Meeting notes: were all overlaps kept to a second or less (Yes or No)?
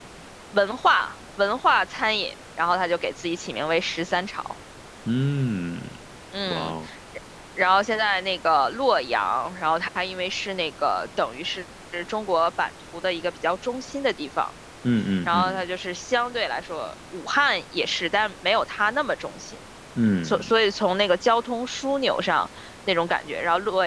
Yes